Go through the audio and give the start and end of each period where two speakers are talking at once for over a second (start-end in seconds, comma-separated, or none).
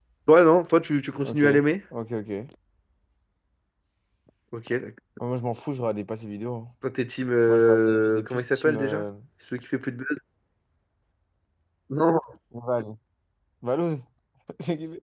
7.5-9.0